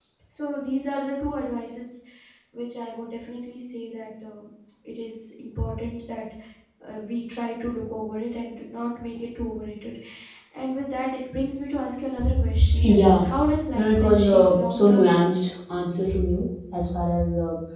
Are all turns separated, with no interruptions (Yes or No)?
No